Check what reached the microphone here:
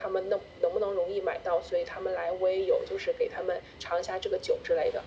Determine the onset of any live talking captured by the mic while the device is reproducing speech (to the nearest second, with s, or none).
none